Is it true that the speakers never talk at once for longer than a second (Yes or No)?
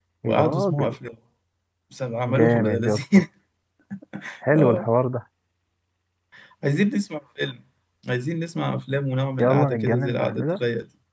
No